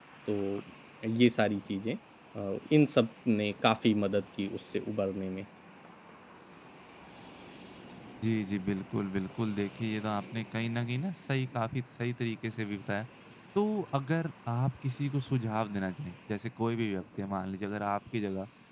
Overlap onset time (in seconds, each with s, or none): none